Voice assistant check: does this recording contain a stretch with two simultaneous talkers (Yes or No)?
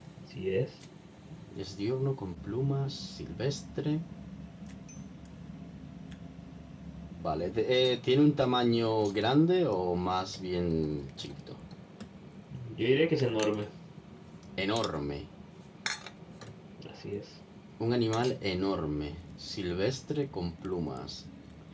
No